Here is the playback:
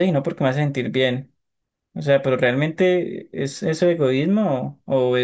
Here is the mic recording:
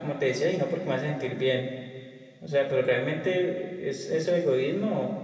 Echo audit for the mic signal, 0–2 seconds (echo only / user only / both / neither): echo only